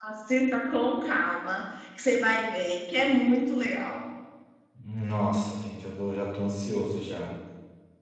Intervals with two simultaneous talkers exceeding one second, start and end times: none

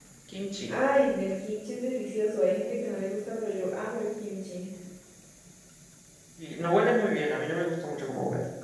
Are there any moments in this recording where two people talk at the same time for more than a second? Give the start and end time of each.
none

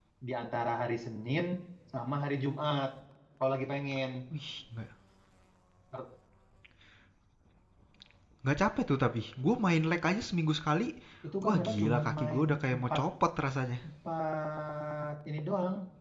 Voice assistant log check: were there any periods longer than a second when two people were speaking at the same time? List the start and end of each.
11.4-13.0

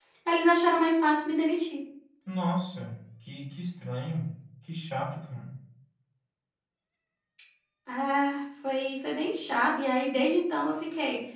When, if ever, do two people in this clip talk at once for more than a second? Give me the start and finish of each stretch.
none

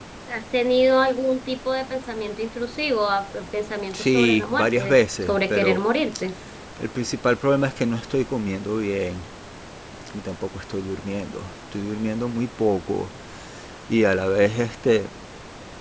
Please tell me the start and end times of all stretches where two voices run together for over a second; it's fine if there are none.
3.9-5.8

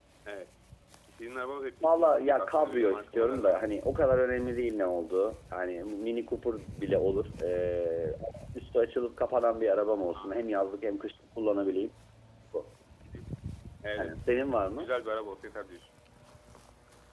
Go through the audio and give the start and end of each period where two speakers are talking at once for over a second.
1.8-3.6

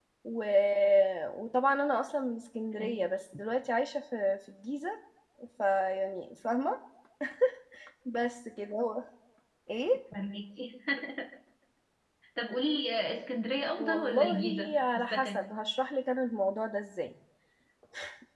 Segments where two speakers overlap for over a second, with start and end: 13.8-15.4

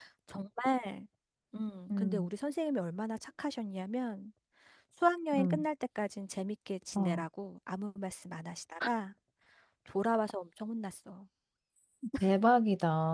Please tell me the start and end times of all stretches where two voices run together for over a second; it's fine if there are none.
none

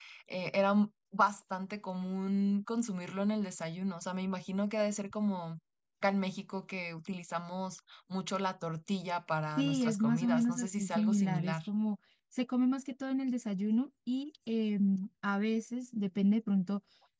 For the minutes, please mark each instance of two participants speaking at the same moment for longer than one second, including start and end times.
9.6-11.6

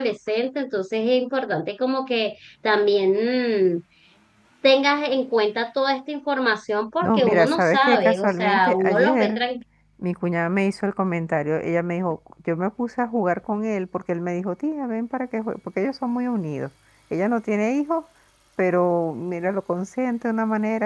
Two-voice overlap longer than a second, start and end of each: 7.0-9.4

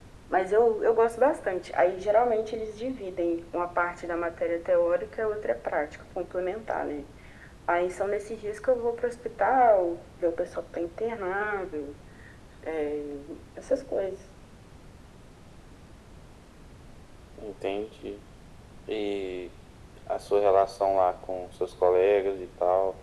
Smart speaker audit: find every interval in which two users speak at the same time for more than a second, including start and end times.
none

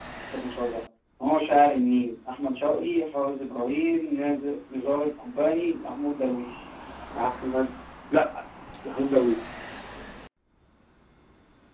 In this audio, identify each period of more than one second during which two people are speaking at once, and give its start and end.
none

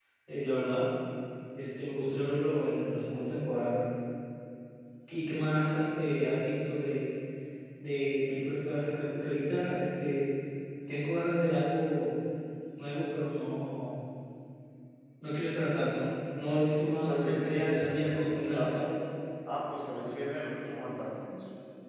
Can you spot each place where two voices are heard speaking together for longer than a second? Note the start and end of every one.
17.1-18.8

